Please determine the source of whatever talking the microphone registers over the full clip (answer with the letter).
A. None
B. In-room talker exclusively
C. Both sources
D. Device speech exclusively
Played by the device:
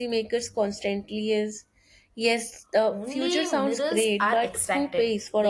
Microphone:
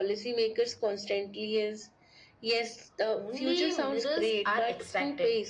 D